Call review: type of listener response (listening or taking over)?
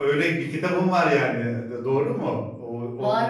taking over